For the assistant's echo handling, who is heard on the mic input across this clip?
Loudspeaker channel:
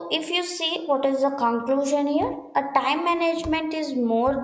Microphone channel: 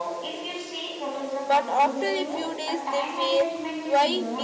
both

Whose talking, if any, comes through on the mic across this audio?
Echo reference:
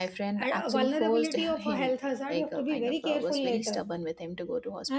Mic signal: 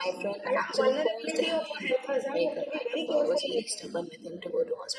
echo only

